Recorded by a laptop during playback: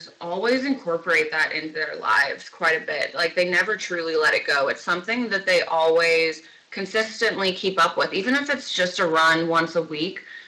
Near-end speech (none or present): none